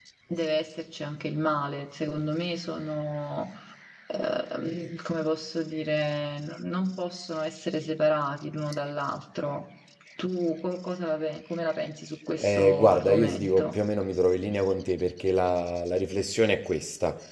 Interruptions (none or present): present